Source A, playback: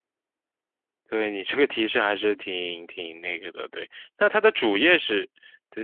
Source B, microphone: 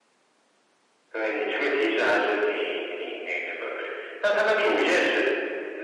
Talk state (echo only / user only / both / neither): echo only